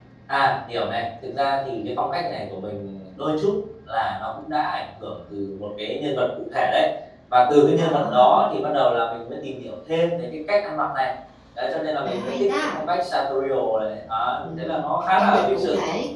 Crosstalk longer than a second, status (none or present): present